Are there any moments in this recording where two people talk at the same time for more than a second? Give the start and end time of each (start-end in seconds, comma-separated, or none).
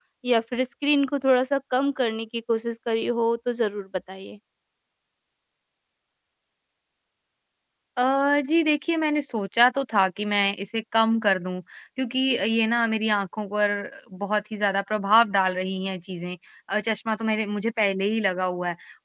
none